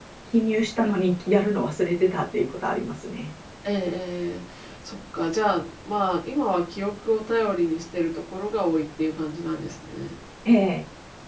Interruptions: none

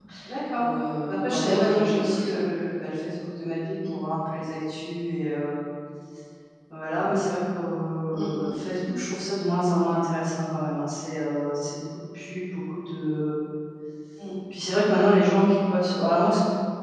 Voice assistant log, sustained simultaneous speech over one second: present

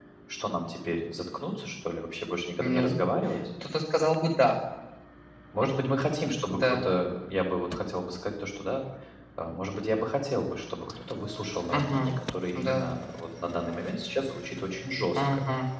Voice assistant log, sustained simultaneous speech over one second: none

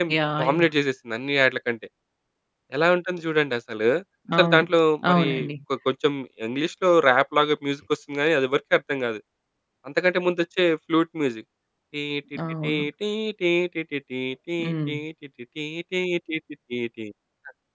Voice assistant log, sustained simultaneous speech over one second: none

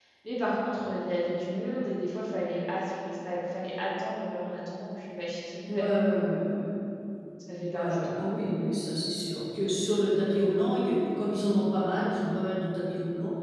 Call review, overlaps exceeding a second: none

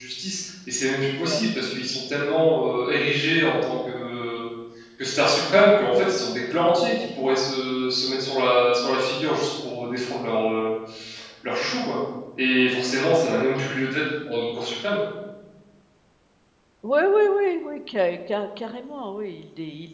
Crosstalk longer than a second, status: none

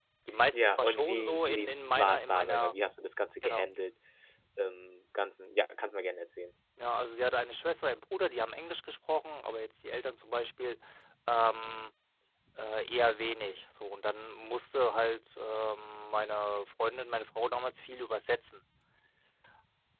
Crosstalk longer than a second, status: present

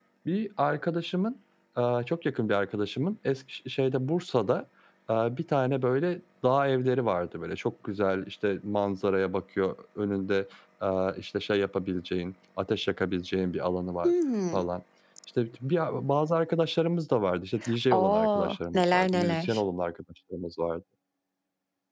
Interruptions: present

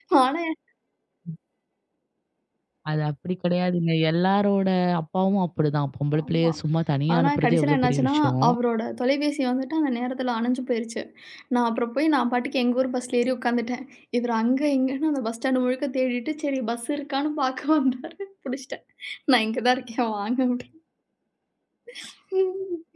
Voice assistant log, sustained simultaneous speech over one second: present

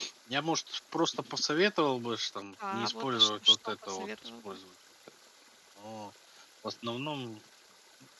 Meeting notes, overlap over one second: present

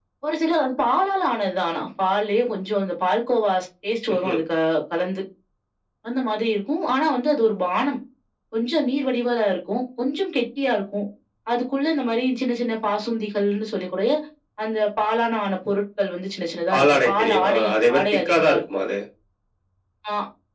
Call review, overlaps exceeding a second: present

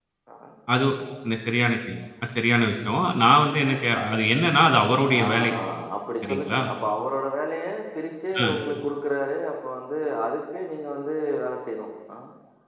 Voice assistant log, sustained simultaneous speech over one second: none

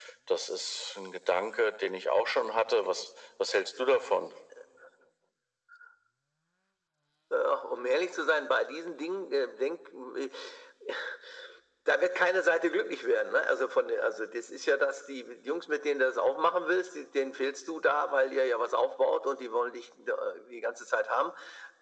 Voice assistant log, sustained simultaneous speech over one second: none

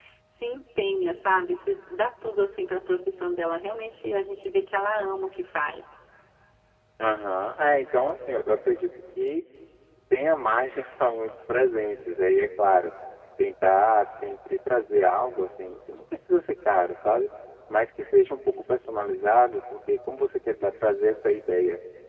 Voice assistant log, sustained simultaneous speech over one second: none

